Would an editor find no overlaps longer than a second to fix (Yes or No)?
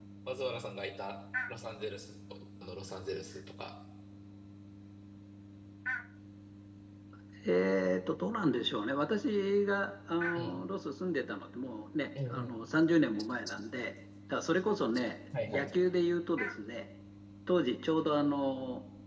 Yes